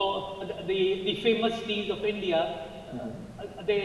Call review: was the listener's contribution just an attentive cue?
Yes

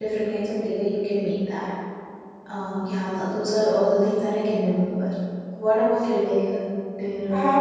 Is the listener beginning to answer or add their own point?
Yes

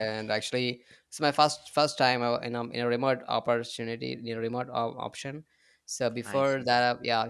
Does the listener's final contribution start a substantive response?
No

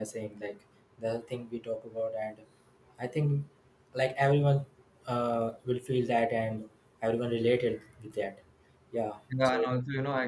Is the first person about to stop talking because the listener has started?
Yes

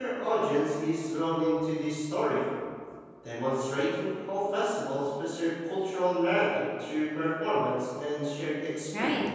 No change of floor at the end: No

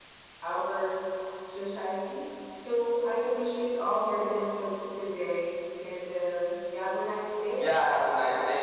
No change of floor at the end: No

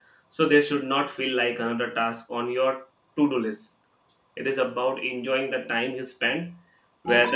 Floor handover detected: No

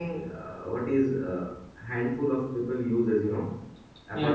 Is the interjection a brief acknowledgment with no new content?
Yes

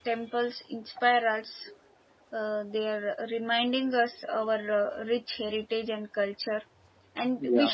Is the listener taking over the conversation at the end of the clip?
No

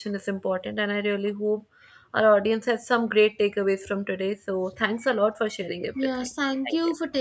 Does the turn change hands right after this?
Yes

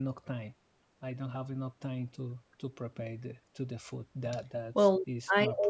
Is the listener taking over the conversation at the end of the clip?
Yes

